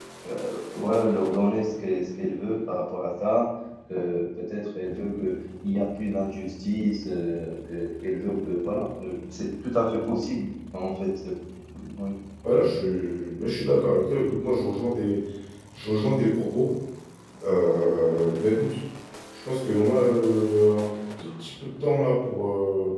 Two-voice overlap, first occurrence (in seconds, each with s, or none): none